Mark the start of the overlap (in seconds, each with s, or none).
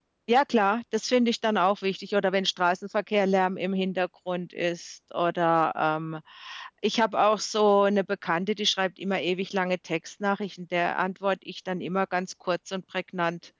none